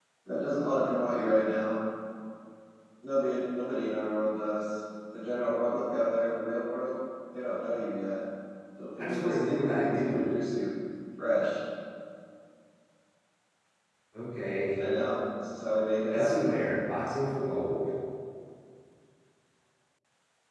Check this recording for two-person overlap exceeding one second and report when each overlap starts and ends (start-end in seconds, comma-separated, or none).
9.0-10.3